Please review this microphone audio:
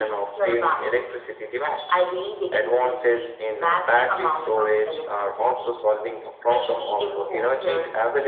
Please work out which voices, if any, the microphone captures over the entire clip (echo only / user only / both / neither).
echo only